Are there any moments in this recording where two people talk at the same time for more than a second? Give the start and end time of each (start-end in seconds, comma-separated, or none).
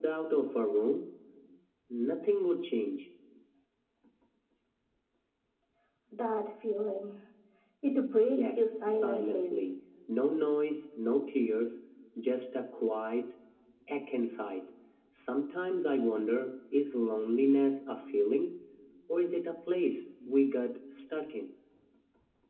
8.3-9.7